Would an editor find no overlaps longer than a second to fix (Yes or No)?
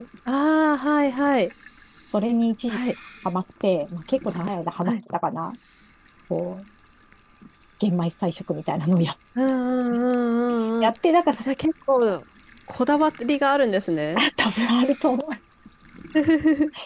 Yes